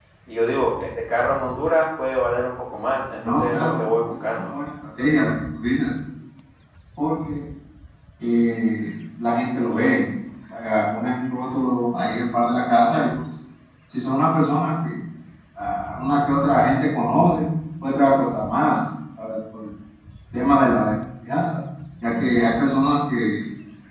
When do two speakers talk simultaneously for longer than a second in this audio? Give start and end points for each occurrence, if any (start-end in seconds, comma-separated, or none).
3.2-4.5